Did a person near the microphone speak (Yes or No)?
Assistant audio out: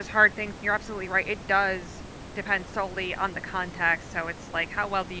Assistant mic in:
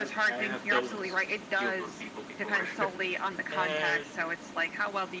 Yes